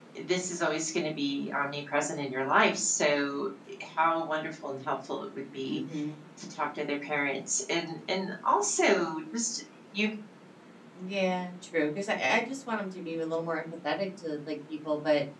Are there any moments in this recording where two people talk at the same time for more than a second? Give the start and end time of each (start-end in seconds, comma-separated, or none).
none